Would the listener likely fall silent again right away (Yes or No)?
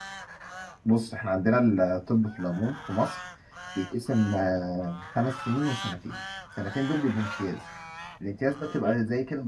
Yes